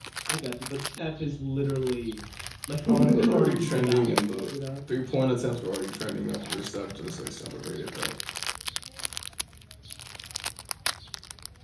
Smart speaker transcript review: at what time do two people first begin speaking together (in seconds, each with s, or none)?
2.9 s